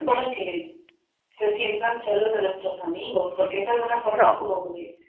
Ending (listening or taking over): listening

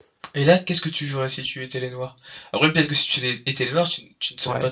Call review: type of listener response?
taking over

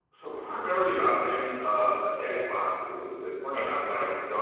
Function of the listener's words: listening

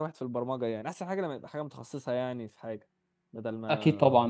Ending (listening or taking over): taking over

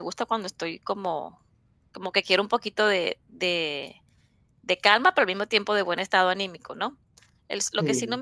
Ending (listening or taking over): listening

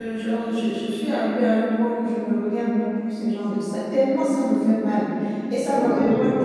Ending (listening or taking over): listening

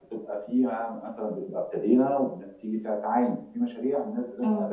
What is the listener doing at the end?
listening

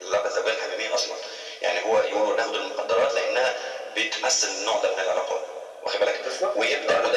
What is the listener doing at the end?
listening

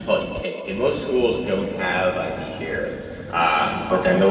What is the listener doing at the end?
listening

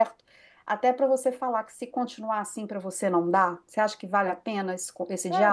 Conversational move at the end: taking over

